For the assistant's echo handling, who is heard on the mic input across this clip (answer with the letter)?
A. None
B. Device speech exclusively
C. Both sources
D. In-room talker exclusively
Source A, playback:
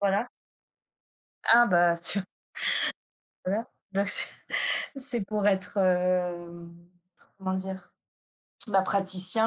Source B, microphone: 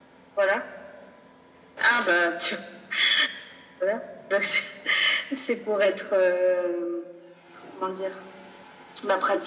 B